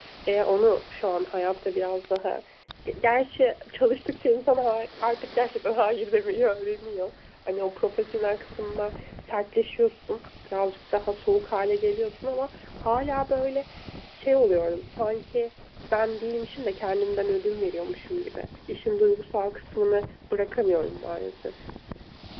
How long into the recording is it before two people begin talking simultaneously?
none

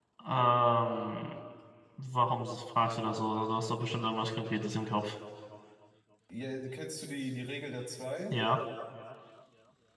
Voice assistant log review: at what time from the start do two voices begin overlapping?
none

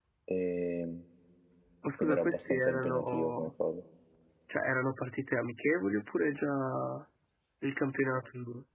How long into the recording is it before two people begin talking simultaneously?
2.0 s

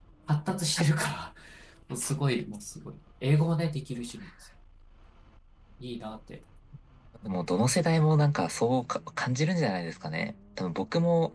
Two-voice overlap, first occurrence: none

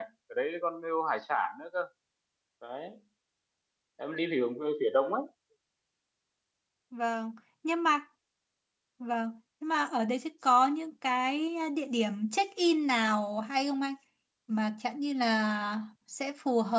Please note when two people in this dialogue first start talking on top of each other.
none

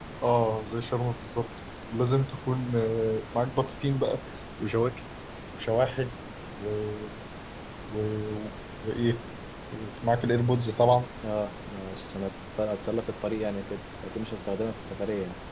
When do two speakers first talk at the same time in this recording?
none

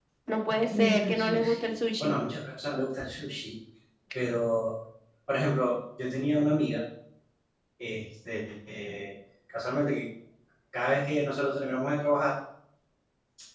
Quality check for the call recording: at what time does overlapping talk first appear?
0.7 s

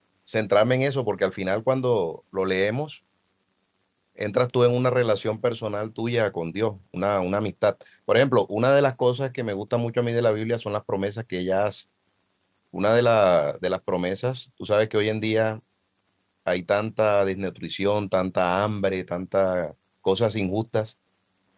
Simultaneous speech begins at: none

